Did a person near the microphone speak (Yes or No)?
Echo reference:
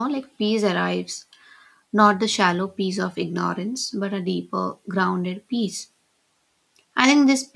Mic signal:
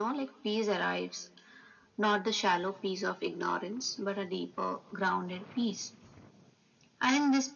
No